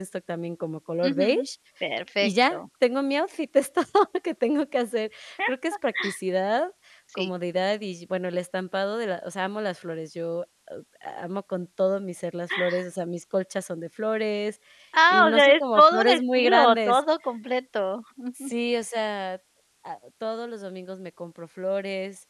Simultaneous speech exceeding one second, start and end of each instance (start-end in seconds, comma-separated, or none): 15.1-17.0